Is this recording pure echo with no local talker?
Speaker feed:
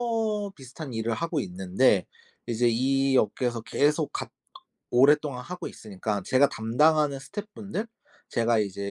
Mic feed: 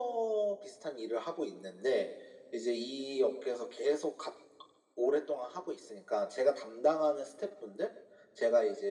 Yes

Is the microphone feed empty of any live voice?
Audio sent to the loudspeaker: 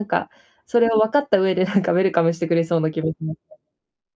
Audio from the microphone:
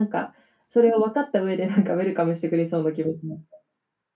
Yes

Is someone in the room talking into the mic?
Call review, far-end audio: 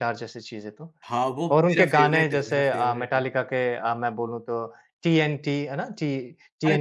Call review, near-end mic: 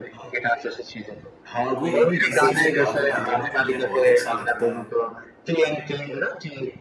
Yes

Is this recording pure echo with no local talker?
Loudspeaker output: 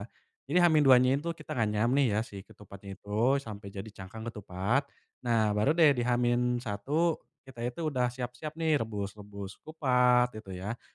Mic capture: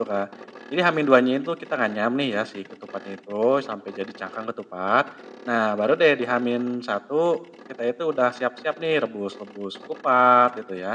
Yes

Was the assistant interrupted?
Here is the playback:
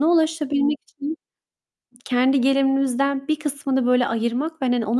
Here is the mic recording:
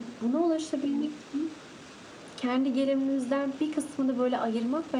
No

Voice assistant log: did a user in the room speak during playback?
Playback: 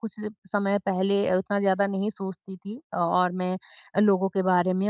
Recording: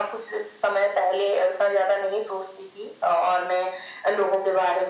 No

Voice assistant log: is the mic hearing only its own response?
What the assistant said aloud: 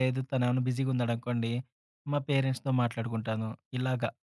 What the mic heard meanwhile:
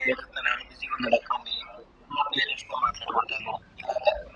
Yes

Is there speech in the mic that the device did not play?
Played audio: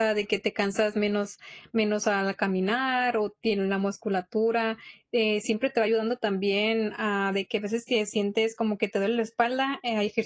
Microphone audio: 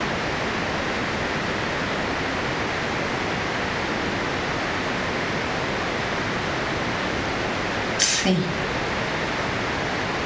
Yes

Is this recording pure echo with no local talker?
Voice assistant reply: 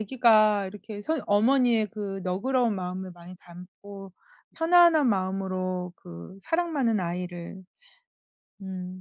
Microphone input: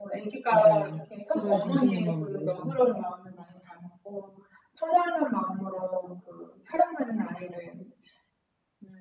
No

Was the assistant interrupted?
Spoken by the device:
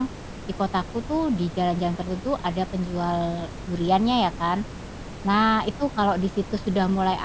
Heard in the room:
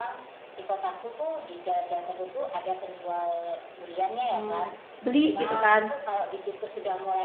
Yes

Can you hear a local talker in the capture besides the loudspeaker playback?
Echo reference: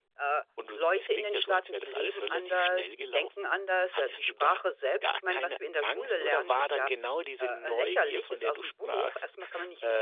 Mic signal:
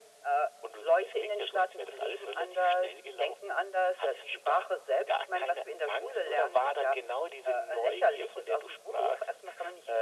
No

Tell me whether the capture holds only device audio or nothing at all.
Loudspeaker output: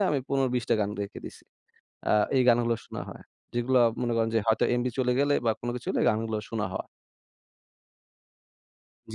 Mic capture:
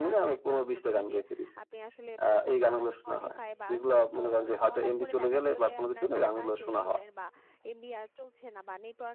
No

